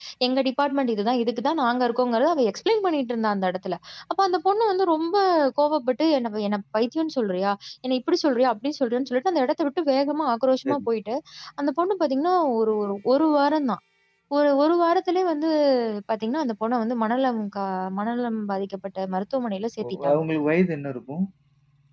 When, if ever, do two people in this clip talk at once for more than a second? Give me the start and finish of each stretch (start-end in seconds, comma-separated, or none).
none